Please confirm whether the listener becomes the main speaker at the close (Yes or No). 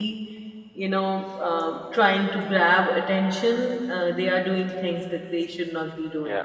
Yes